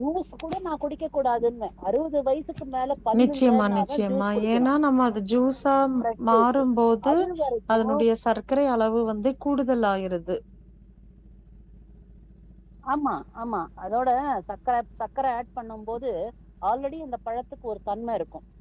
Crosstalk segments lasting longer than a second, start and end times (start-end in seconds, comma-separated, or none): 3.2-4.7